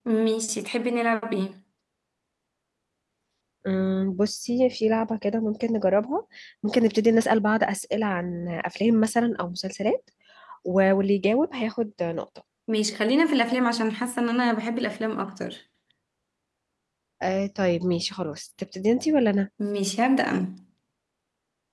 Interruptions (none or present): none